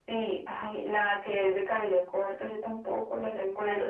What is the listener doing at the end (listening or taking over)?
listening